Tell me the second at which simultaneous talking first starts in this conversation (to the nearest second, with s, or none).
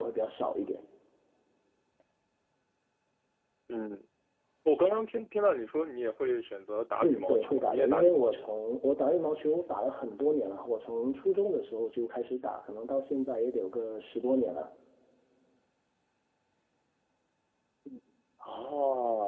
7 s